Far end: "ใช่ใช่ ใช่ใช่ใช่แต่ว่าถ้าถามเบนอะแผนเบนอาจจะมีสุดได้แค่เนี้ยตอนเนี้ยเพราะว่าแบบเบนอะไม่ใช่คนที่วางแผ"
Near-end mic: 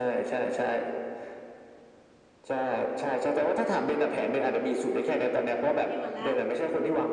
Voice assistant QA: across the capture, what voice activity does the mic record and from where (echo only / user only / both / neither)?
both